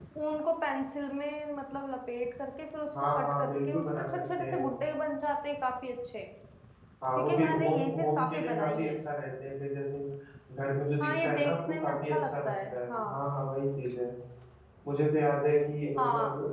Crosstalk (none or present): present